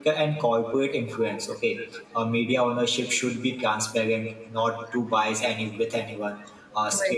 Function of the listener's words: listening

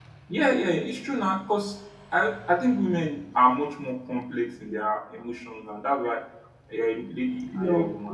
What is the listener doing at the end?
taking over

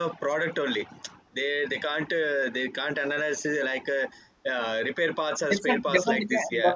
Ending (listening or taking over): taking over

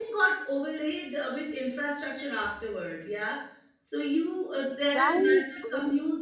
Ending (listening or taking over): listening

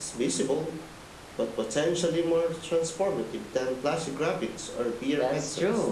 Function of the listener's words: taking over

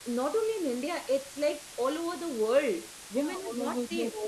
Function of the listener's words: taking over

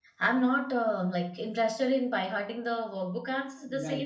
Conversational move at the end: listening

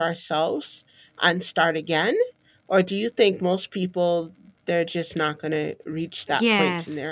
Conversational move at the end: taking over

